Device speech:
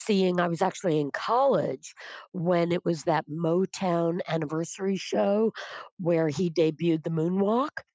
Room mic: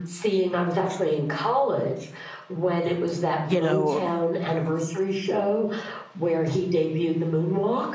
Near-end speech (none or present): present